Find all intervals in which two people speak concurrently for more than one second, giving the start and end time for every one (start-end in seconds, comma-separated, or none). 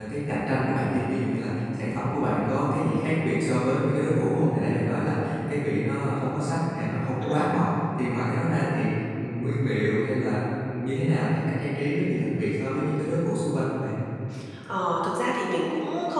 none